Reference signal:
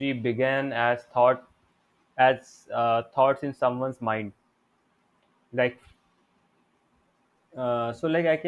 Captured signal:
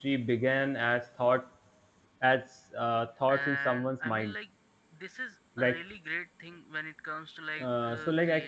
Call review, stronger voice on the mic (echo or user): echo